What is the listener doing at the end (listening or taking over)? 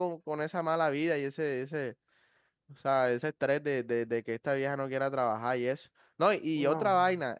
listening